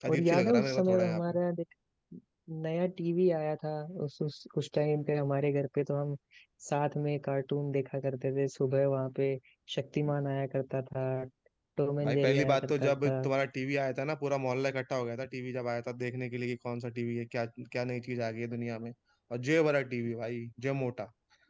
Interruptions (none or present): present